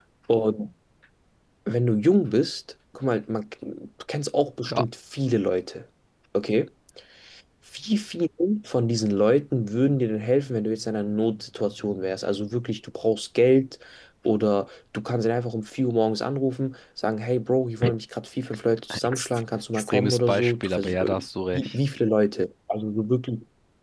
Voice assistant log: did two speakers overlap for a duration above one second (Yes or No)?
Yes